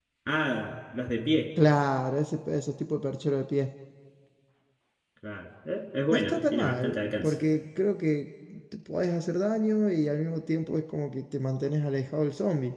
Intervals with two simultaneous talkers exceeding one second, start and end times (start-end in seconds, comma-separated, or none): 6.1-7.3